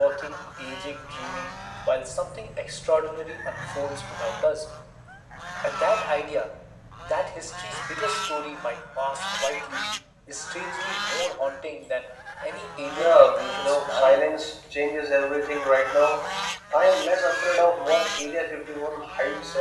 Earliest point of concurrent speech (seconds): 13 s

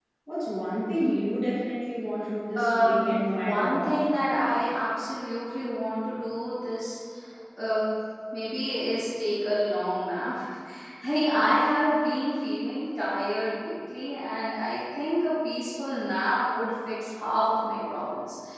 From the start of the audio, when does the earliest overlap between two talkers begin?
3 s

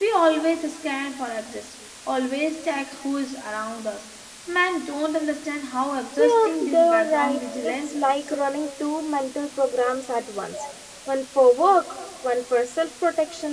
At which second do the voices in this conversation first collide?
6 s

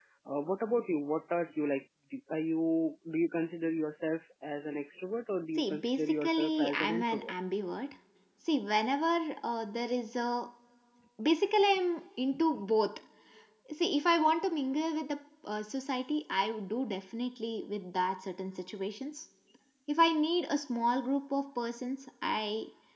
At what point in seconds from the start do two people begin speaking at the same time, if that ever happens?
6 s

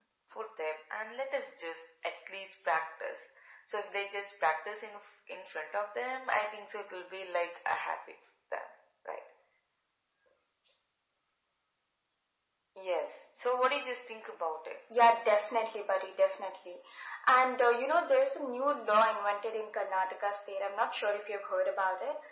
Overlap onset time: none

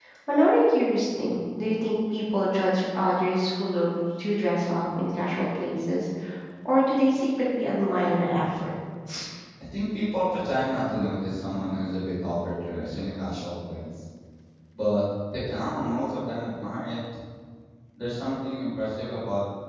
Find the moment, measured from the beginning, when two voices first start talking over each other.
none

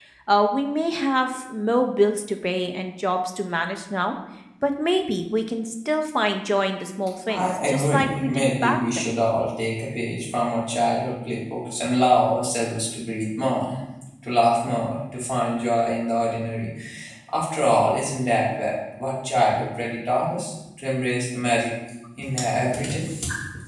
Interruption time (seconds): 7 s

